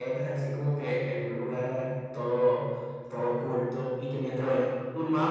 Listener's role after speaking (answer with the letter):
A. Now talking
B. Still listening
B